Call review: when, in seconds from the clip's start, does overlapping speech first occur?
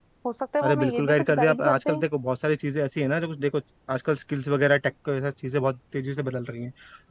0.6 s

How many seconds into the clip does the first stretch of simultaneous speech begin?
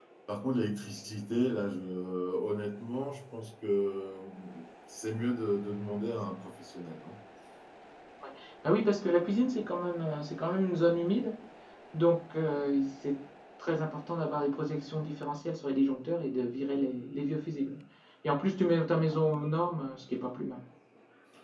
none

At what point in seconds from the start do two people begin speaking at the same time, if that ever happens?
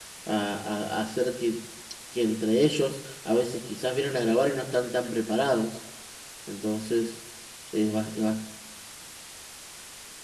none

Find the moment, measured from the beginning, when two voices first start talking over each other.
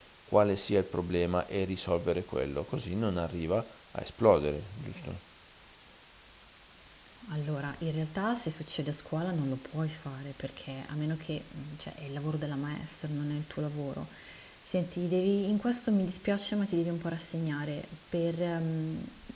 none

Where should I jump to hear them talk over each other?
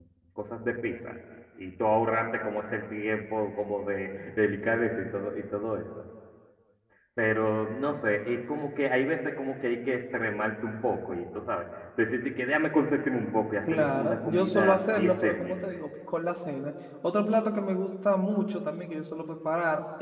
13.7 s

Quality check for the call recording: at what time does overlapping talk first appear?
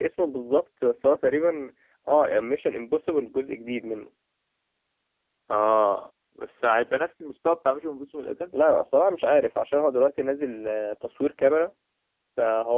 none

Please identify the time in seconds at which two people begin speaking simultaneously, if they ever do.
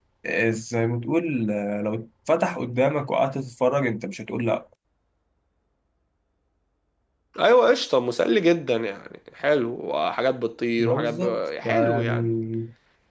10.8 s

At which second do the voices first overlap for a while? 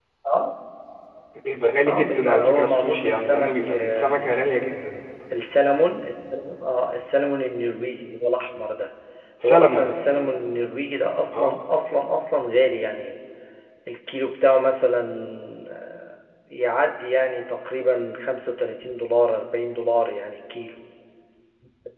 1.9 s

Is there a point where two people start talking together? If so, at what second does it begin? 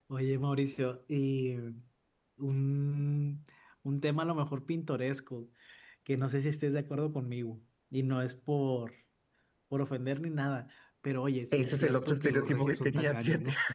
11.5 s

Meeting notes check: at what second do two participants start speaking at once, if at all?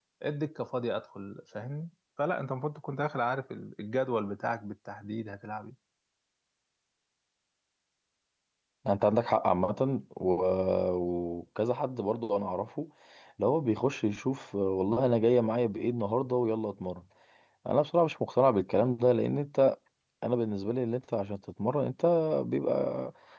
none

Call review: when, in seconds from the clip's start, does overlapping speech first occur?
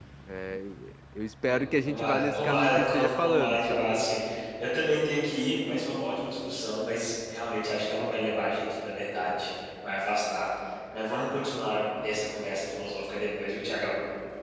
1.4 s

